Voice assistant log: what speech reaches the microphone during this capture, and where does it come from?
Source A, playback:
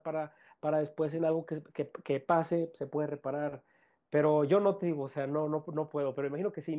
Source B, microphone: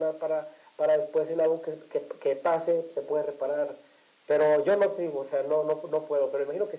echo only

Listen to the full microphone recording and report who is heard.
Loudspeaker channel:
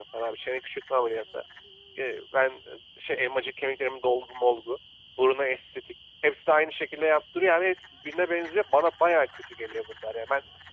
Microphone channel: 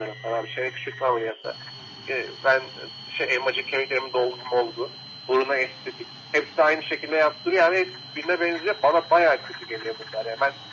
echo only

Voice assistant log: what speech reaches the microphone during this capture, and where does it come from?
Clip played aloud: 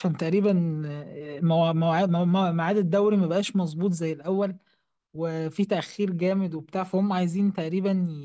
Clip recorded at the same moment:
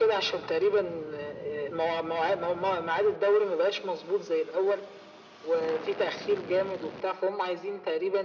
echo only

